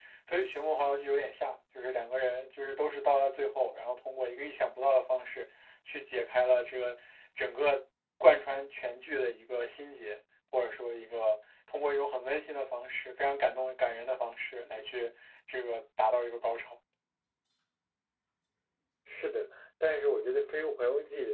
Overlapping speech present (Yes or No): No